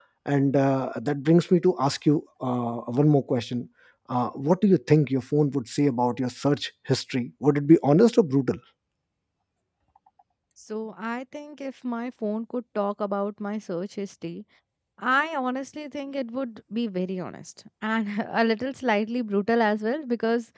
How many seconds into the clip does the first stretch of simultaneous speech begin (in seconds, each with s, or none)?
none